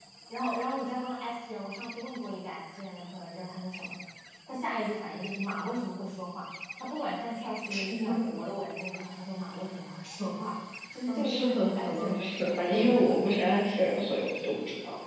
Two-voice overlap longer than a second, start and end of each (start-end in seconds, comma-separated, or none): 11.1-13.1